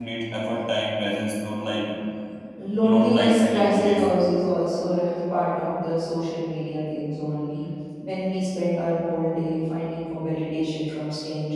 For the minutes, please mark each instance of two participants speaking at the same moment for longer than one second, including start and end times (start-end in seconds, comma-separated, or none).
2.8-4.0